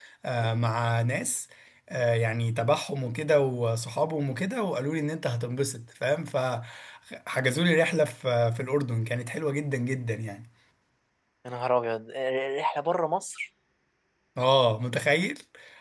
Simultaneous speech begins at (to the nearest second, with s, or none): none